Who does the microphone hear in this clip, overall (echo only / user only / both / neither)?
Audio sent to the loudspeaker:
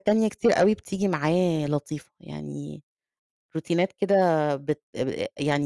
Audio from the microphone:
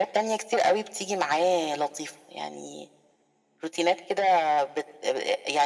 echo only